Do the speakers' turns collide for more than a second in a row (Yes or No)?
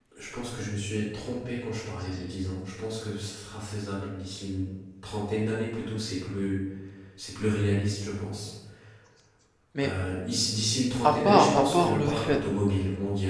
Yes